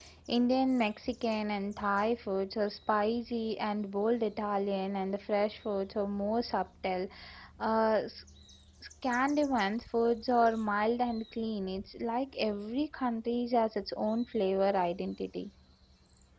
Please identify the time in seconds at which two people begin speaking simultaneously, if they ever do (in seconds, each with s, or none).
none